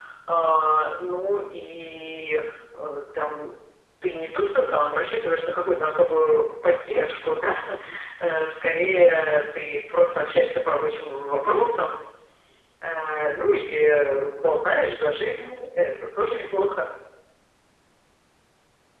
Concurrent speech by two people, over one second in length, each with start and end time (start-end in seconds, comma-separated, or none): none